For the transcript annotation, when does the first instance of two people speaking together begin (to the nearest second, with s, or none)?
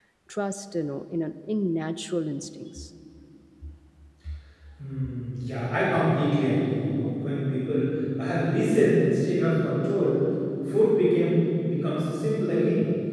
none